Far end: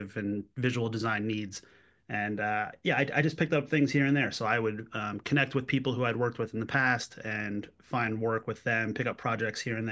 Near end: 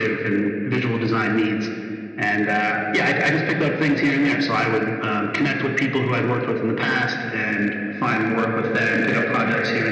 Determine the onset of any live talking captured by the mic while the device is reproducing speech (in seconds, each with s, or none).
none